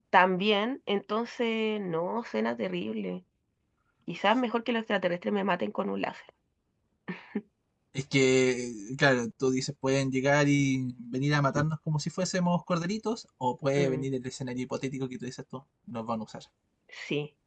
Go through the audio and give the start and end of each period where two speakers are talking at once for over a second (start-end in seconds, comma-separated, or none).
none